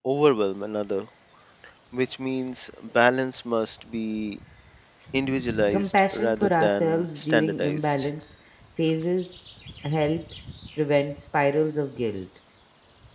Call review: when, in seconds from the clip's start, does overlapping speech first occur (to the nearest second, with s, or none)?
6 s